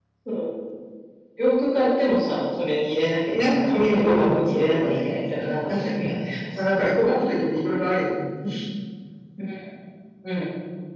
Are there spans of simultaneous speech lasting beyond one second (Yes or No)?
Yes